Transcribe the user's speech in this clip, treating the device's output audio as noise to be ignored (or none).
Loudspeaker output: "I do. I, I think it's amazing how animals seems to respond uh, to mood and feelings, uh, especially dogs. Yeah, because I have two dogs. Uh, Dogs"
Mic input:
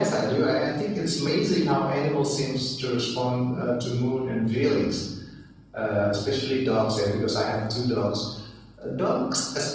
none